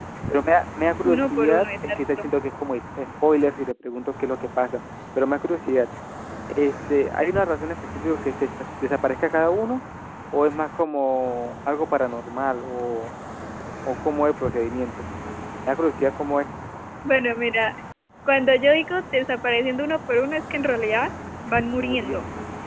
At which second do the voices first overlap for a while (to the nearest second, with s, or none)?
1 s